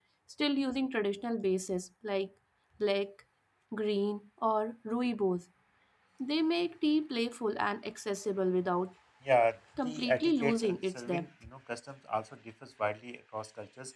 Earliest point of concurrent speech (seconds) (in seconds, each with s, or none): 9.8 s